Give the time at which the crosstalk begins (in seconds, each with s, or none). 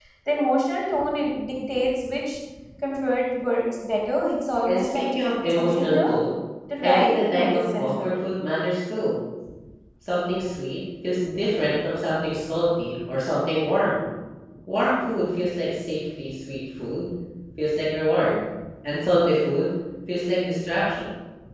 4.7 s